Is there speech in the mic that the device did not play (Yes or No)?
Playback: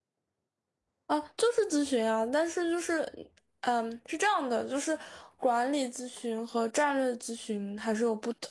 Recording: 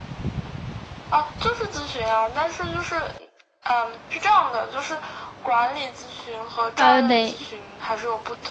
Yes